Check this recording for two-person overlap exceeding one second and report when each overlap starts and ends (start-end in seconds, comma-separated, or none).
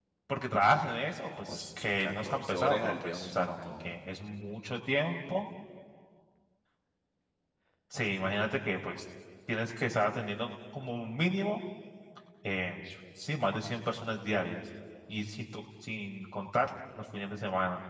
1.2-3.9